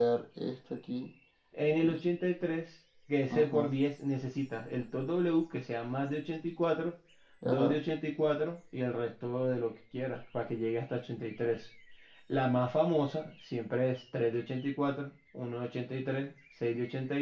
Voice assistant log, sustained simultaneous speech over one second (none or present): none